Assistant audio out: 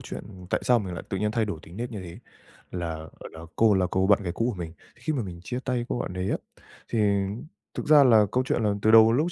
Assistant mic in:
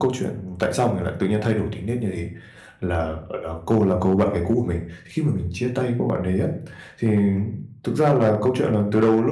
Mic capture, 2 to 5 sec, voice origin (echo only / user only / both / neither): echo only